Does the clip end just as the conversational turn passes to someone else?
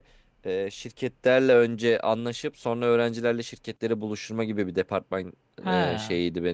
No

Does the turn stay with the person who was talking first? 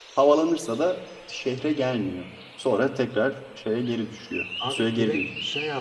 No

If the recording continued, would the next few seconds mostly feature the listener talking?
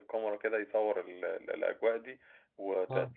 No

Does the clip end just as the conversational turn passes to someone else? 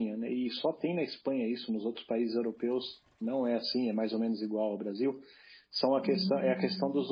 No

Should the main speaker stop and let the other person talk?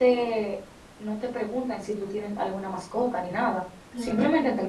No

